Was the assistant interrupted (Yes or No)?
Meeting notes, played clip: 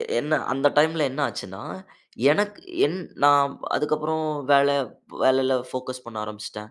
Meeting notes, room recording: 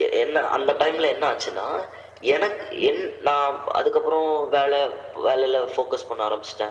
No